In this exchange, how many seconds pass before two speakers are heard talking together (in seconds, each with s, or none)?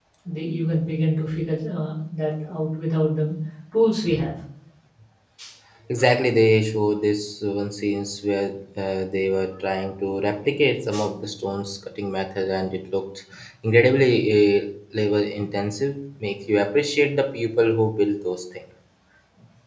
none